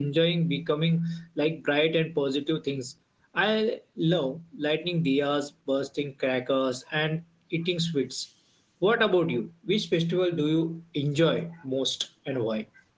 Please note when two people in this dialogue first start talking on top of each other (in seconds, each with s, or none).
none